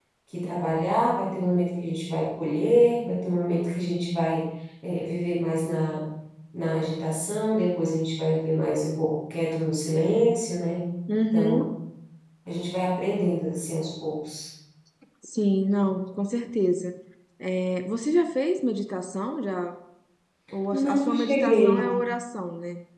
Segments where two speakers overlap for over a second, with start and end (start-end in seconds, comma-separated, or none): 20.7-21.9